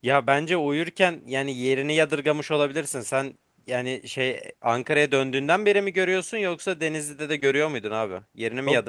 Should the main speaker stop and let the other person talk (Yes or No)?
Yes